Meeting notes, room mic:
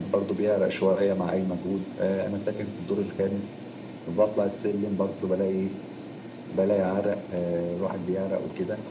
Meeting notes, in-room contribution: none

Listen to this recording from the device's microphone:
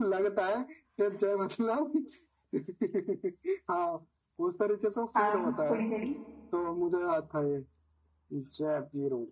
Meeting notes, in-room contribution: present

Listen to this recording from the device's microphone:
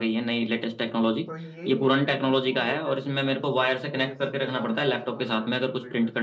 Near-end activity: present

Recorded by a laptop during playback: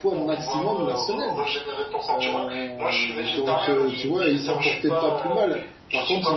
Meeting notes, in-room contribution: present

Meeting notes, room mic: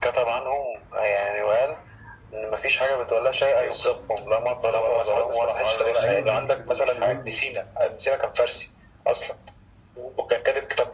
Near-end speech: present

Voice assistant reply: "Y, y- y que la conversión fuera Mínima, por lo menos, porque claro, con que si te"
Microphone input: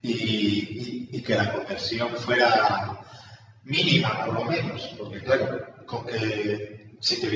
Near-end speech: present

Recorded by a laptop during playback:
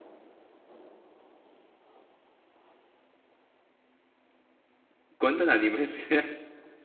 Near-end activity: present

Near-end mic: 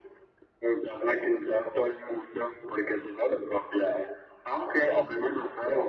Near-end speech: none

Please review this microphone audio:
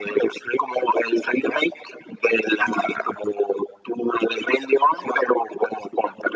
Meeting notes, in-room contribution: none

